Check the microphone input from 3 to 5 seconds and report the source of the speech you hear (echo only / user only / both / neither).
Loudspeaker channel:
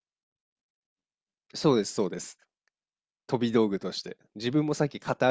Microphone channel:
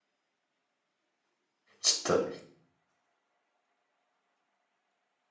neither